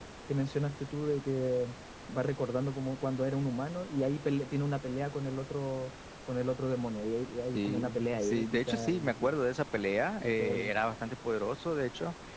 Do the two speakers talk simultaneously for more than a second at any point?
Yes, from 7.5 s

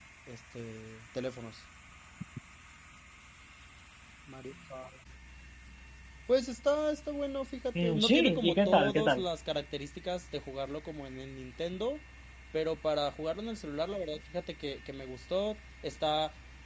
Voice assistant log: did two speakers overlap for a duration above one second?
Yes, from 7.8 s

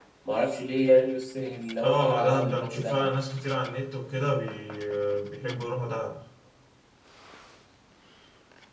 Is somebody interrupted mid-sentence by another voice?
Yes, from 1.8 s

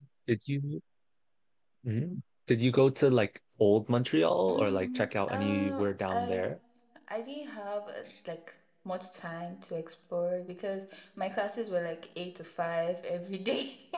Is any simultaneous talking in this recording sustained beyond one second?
Yes, from 4.5 s

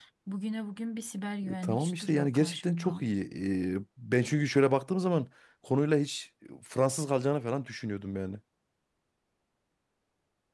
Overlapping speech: Yes, from 1.4 s

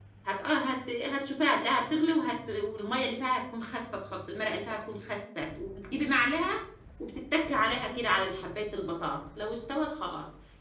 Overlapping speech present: No

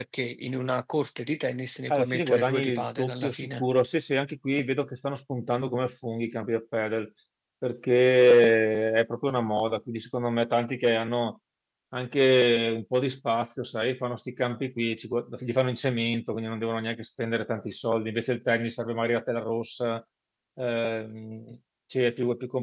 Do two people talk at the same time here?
Yes, from 1.9 s

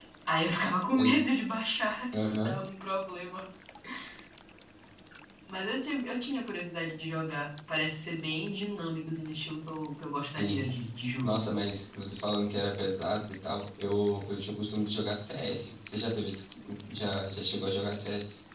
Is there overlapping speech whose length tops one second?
No

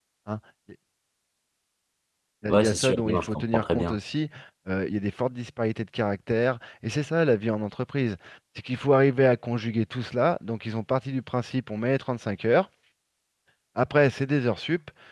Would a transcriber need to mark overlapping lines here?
Yes, from 2.5 s

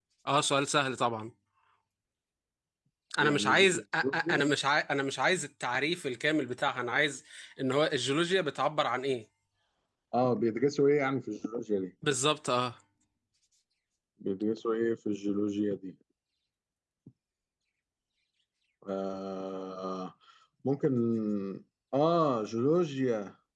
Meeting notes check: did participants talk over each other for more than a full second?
Yes, from 3.2 s

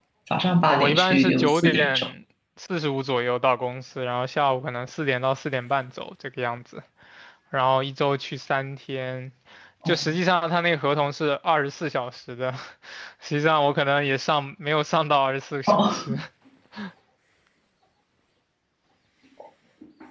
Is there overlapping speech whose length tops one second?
Yes, from 0.7 s

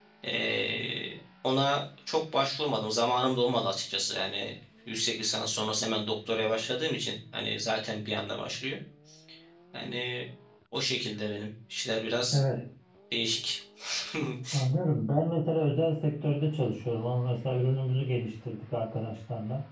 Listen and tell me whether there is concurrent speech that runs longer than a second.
No

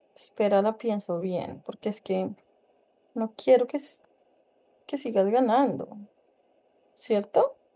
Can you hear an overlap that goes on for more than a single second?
No

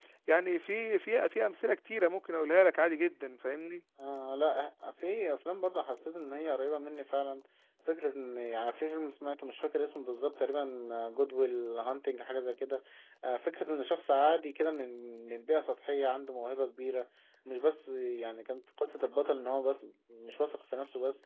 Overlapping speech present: No

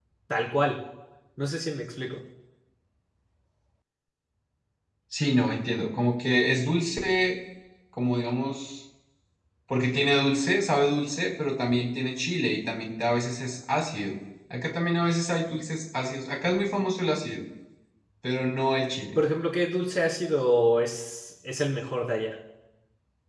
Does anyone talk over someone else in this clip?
No

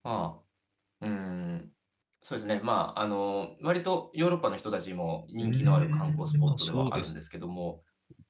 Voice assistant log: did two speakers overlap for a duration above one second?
Yes, from 5.4 s

